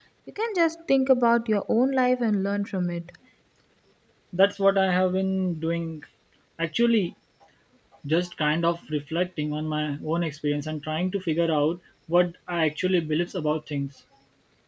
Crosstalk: none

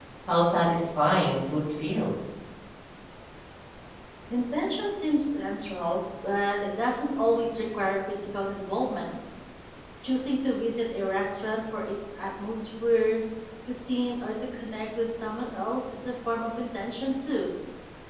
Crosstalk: none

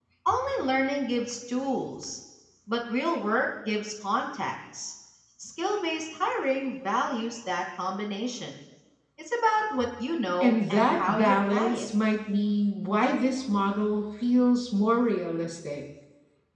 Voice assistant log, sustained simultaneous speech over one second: present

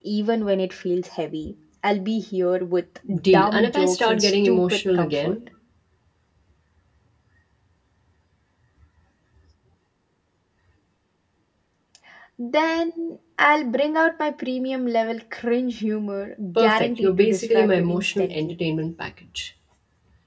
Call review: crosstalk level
present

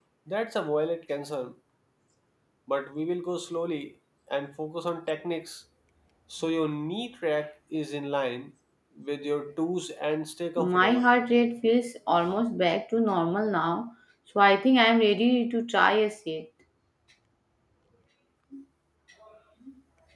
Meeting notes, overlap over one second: none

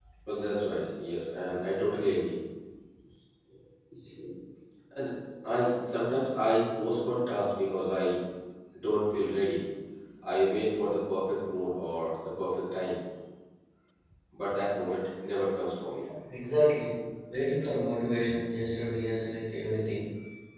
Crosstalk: none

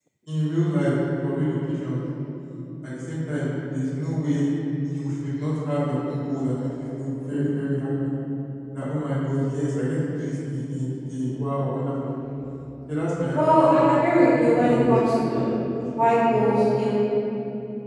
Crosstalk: present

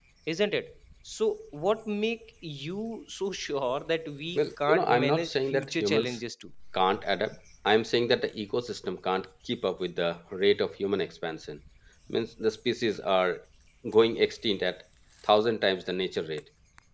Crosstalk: present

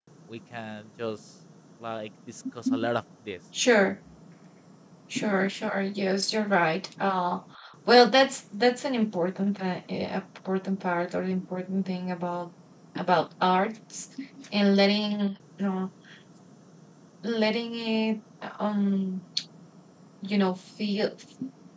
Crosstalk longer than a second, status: none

